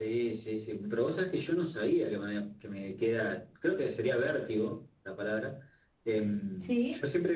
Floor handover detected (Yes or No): No